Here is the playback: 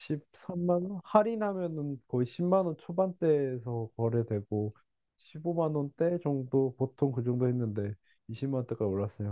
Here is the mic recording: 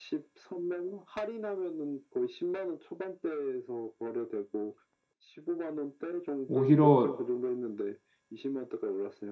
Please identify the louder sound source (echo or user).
user